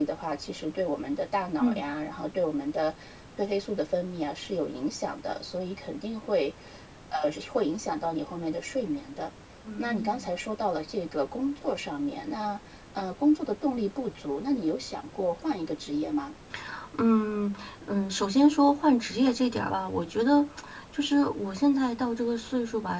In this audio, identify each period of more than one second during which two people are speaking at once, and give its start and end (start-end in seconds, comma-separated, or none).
none